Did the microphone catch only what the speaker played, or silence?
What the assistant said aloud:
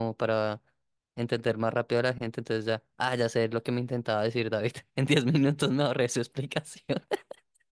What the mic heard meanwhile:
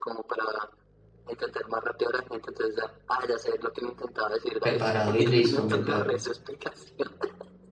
No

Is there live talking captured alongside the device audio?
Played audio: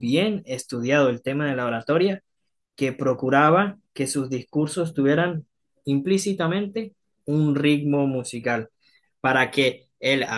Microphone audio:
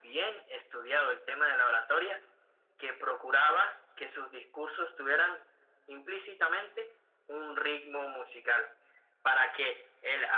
No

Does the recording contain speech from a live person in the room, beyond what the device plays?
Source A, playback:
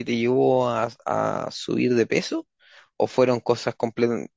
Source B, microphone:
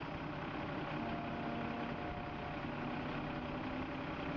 No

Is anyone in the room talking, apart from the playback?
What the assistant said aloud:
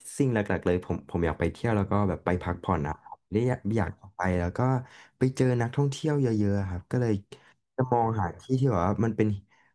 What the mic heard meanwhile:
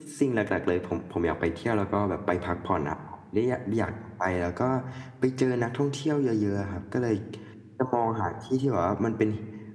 No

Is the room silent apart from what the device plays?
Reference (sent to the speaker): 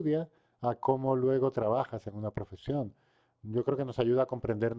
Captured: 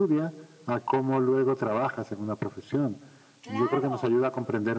No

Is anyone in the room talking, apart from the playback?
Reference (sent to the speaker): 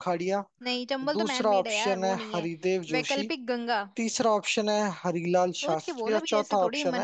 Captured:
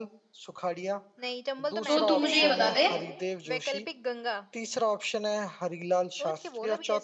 Yes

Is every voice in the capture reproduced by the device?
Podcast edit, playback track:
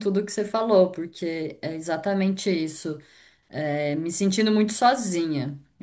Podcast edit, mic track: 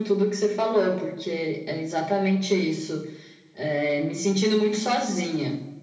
Yes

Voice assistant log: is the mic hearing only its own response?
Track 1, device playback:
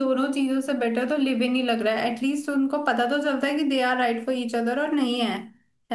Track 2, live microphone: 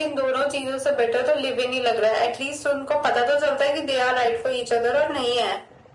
Yes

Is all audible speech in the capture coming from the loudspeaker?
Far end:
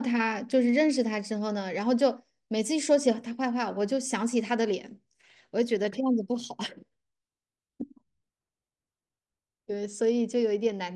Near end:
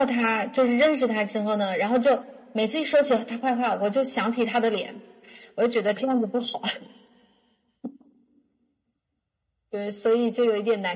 Yes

